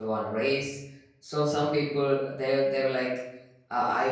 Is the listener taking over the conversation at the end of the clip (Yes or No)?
No